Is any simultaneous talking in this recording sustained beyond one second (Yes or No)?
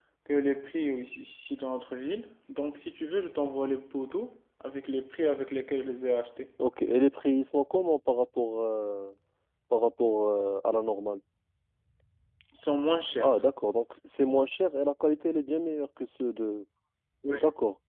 No